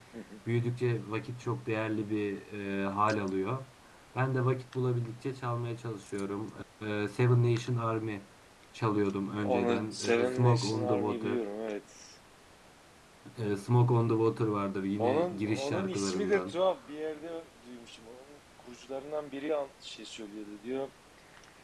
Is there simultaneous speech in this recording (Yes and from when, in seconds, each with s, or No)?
Yes, from 9.4 s